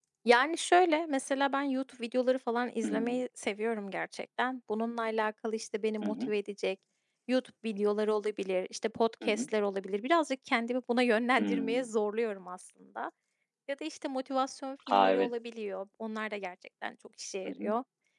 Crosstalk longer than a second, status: none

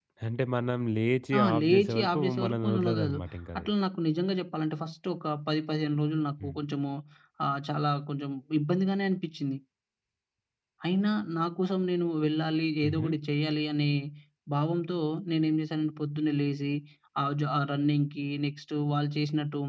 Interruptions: present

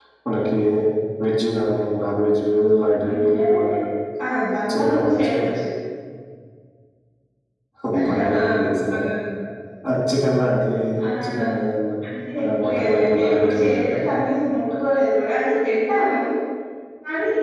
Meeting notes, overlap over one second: present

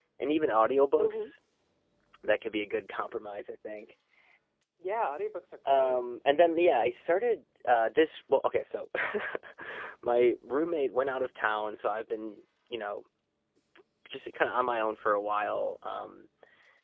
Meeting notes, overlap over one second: none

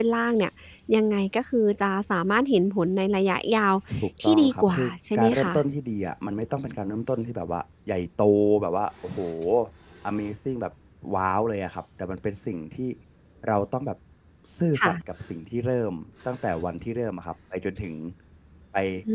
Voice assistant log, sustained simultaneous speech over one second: present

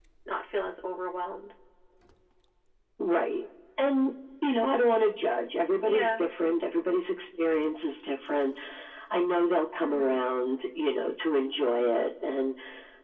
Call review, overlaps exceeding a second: none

